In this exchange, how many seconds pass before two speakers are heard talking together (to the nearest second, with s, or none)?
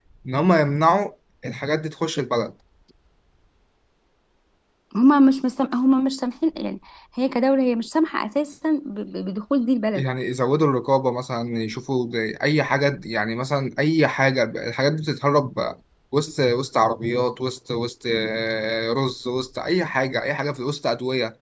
none